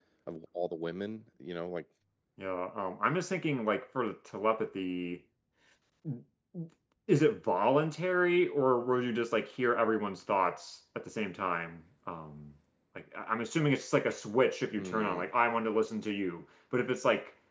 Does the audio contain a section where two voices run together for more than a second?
No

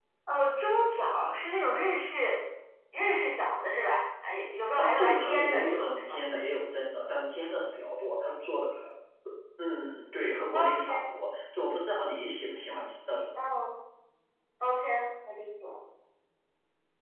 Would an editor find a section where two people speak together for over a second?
Yes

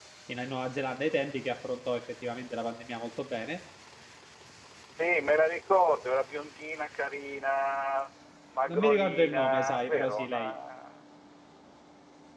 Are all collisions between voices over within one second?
No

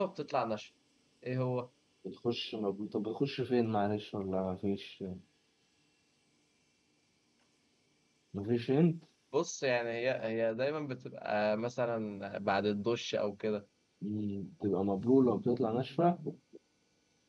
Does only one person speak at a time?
Yes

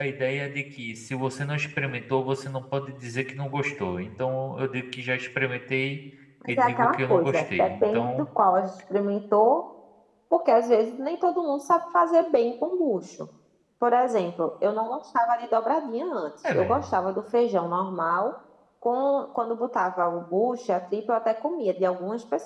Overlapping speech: Yes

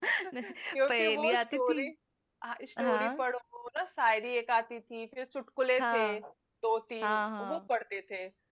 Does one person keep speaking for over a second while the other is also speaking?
Yes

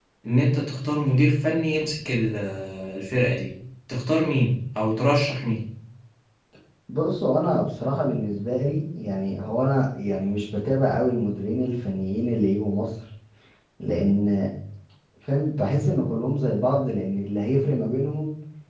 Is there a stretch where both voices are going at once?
No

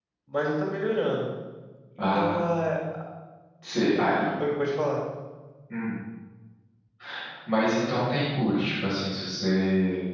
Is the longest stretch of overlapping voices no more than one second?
Yes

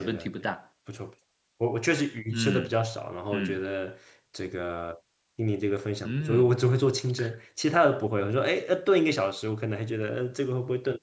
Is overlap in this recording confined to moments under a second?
Yes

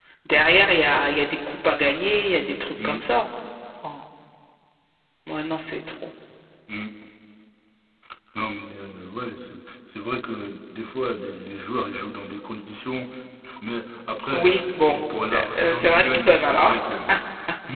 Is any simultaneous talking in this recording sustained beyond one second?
Yes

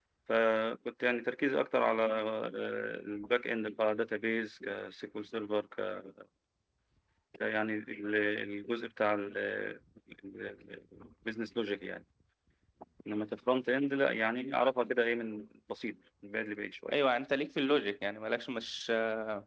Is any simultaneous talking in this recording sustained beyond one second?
No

